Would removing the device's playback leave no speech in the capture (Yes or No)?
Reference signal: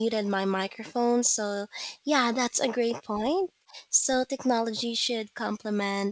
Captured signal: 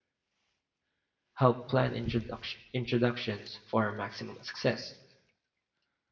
No